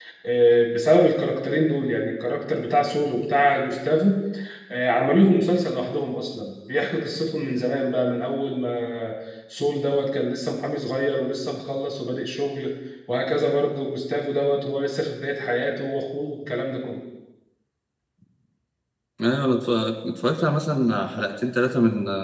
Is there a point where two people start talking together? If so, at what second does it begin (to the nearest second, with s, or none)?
none